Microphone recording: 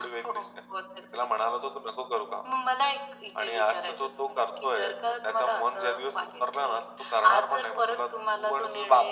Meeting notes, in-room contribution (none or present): none